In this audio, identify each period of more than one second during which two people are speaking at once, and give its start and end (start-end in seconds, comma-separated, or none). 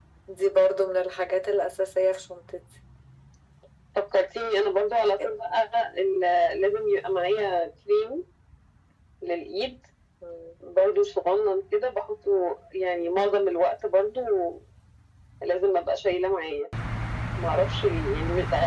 none